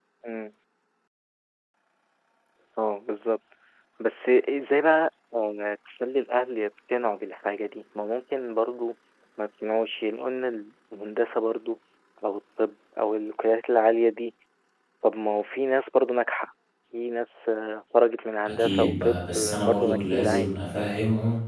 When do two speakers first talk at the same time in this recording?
18 s

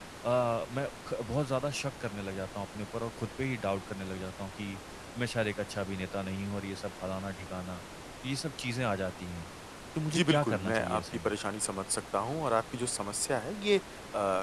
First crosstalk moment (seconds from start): 10 s

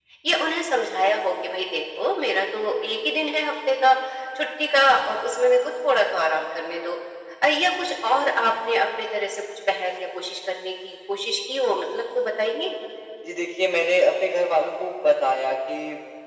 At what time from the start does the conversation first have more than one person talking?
none

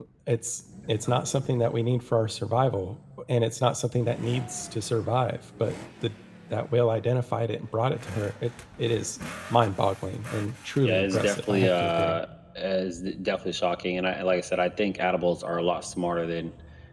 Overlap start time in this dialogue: 11 s

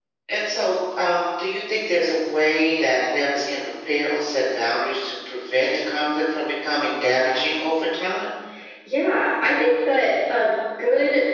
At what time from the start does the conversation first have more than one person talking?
none

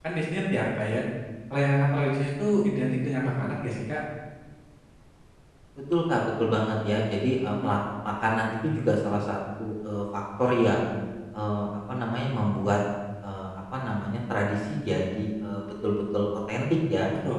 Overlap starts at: none

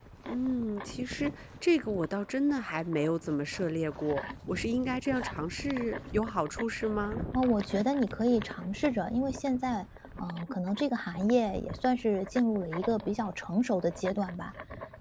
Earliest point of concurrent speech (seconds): none

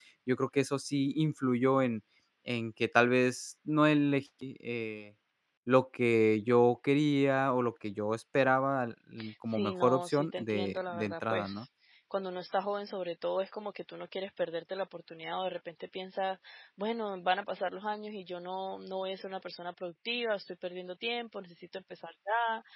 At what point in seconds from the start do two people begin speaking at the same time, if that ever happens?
9 s

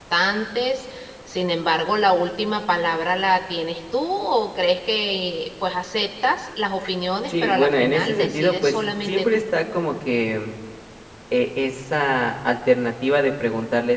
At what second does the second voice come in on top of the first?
7 s

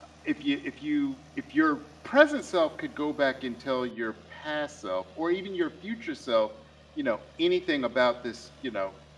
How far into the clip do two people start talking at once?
none

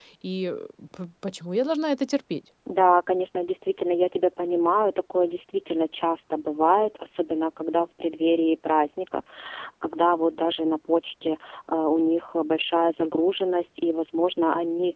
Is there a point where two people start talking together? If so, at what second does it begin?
none

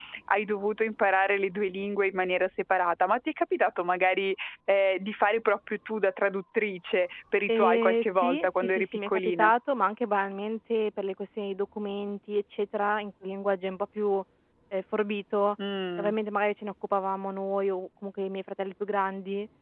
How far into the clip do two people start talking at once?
7 s

